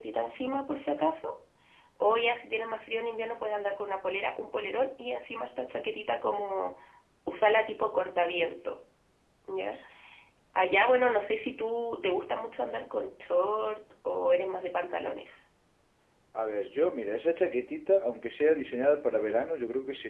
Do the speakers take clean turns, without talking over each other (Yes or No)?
Yes